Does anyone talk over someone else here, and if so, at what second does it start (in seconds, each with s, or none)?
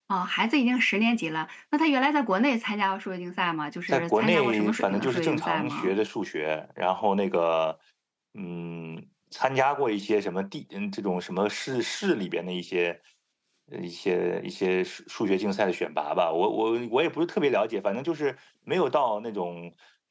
3.9 s